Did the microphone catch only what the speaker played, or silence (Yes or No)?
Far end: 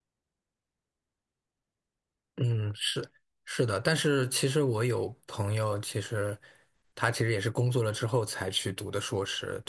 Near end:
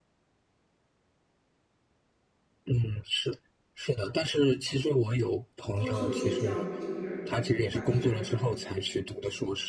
No